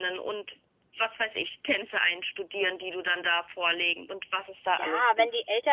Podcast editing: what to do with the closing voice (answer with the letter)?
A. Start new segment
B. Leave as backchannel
A